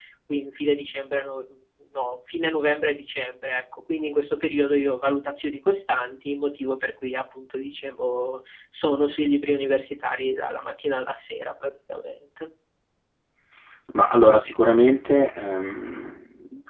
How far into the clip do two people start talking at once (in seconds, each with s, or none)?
none